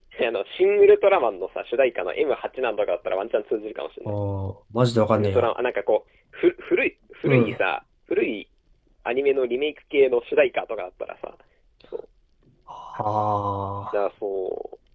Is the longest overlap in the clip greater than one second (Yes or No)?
No